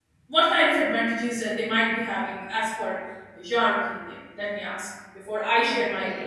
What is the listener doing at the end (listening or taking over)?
taking over